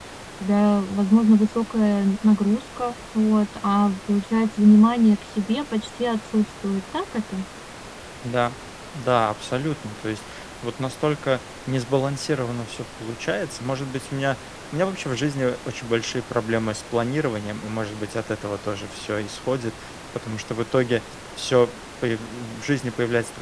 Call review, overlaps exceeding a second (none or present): none